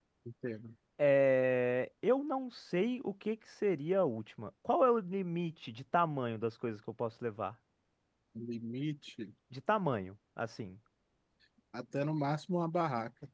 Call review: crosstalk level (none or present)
none